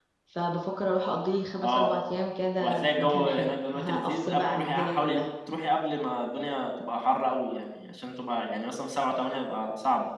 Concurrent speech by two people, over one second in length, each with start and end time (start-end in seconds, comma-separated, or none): 2.6-5.2